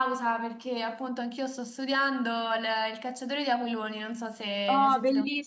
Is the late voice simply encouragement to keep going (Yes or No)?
No